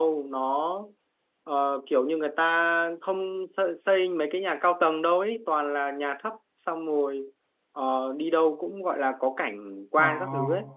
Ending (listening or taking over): listening